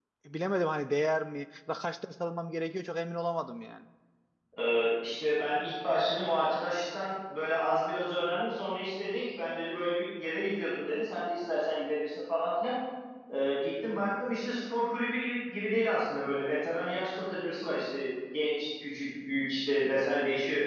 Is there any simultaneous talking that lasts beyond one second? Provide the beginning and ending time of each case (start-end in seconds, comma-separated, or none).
none